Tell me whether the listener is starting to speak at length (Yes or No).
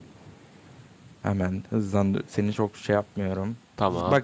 No